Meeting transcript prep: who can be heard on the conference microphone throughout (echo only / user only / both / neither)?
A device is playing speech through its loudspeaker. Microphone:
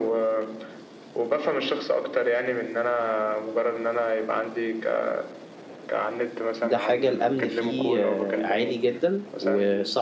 both